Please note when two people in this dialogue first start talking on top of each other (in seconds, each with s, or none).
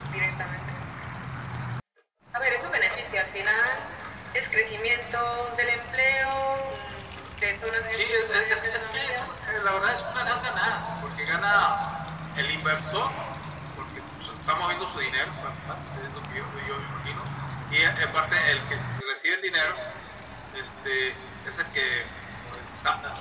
7.9 s